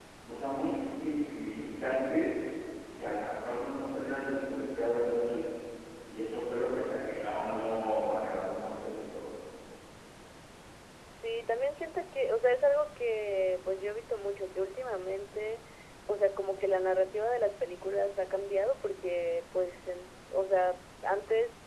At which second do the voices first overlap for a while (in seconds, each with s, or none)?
none